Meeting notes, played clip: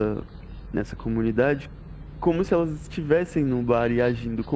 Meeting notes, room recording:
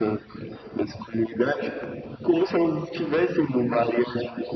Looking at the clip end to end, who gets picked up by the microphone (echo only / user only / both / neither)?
echo only